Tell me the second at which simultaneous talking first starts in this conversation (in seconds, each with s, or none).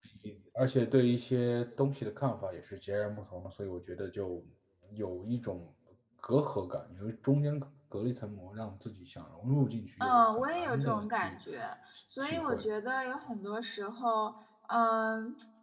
10.0 s